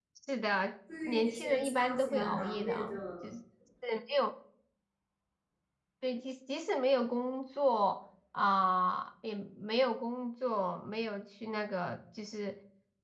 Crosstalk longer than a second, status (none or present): present